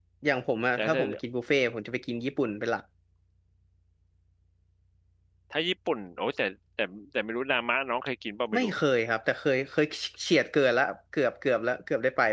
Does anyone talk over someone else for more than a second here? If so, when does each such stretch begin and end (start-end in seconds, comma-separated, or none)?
none